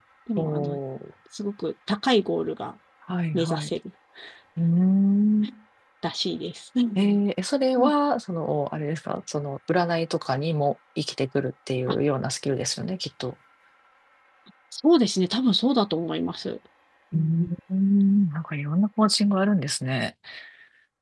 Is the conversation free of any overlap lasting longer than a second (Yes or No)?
Yes